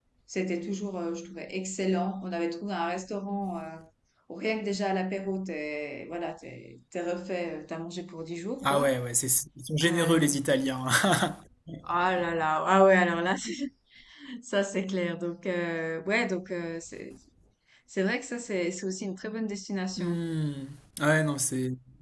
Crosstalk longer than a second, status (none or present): none